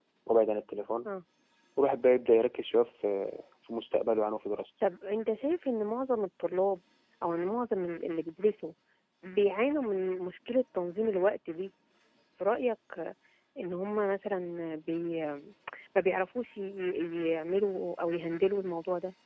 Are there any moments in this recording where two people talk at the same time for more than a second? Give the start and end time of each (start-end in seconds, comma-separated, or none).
none